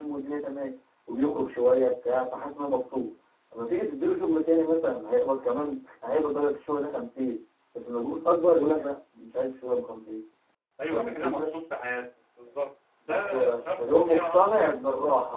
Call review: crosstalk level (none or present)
present